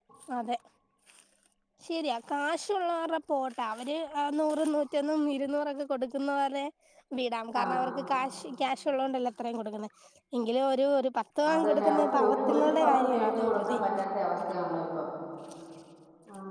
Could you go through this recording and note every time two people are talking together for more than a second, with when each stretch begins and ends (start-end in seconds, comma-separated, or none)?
11.5-13.8